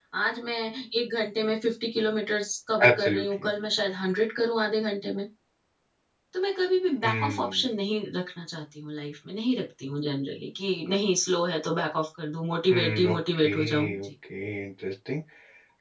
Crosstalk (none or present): present